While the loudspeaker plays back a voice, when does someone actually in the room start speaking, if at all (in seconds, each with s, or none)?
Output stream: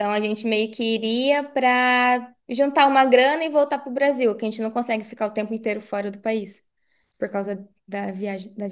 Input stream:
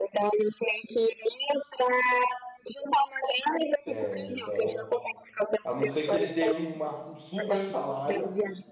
3.8 s